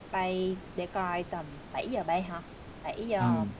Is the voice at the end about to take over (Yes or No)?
Yes